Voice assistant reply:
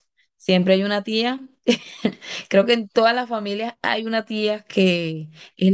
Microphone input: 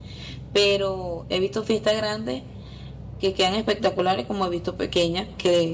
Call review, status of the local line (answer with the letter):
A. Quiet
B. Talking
B